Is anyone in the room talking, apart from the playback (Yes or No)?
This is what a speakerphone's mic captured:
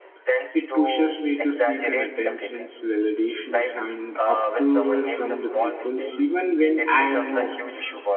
Yes